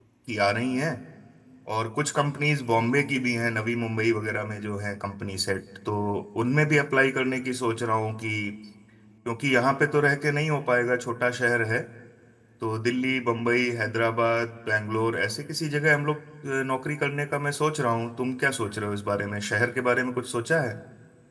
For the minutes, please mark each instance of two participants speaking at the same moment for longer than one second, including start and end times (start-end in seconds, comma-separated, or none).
none